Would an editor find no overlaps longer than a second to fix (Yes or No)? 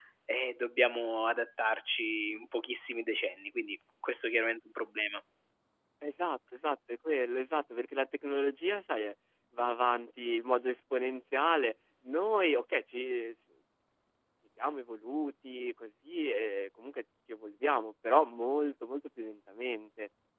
Yes